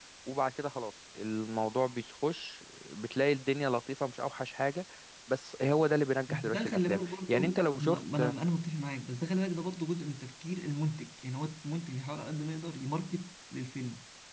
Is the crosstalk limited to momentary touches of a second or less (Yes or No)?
No